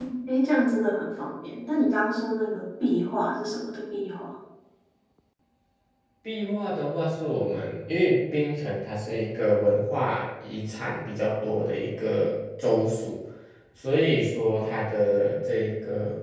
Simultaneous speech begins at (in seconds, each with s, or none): none